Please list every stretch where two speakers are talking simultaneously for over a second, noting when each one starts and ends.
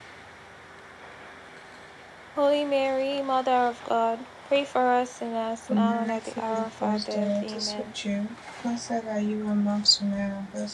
5.7-7.9

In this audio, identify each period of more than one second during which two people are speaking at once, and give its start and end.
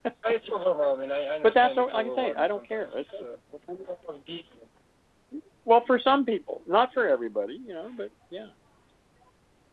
1.4-3.1

